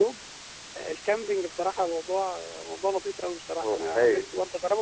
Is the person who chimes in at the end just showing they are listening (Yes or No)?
Yes